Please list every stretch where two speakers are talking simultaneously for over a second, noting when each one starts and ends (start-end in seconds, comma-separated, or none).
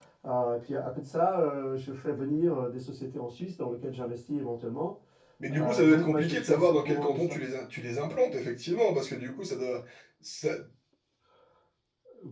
5.5-7.4